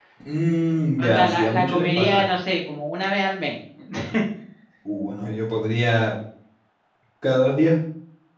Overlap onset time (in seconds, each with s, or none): 1.0 s